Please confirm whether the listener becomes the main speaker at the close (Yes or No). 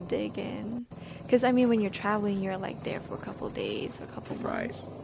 Yes